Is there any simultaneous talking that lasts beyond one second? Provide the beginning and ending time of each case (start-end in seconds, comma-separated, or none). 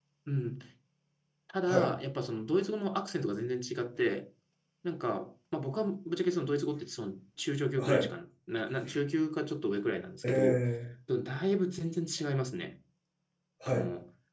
none